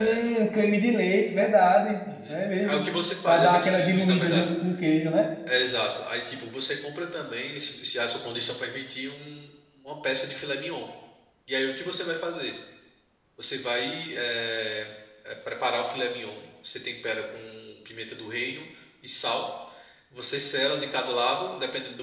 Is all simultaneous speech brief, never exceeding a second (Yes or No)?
No